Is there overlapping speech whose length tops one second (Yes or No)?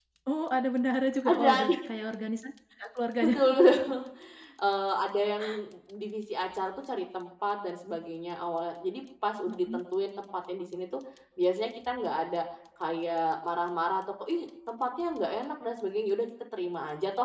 No